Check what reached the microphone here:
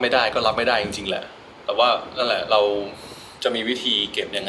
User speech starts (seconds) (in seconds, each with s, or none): none